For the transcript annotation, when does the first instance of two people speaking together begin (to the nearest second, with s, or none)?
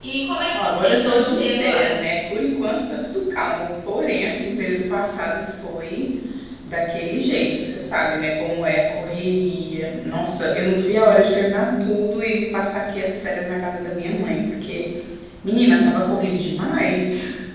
1 s